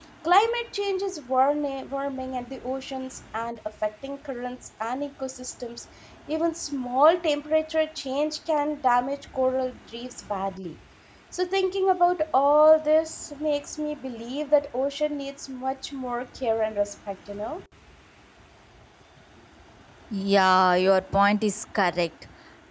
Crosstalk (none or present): none